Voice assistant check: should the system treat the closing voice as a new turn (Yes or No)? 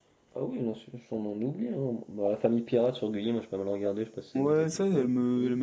Yes